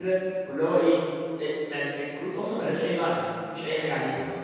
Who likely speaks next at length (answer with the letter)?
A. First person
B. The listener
A